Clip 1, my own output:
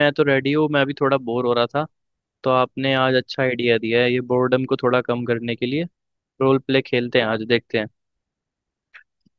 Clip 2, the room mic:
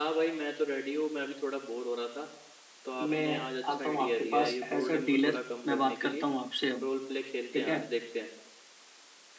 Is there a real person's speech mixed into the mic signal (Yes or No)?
Yes